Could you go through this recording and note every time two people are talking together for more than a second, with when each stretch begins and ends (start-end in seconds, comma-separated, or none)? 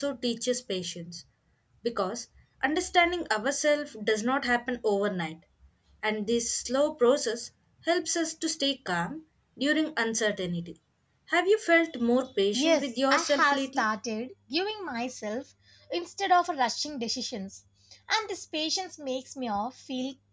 12.5-13.8